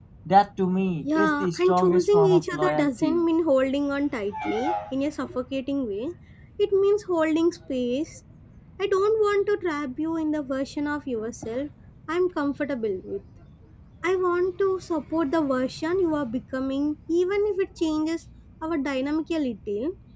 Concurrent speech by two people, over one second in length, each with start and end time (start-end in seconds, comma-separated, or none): 1.0-3.2